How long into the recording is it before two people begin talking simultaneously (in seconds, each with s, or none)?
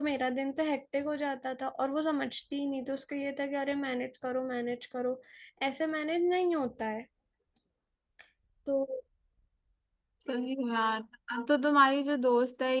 none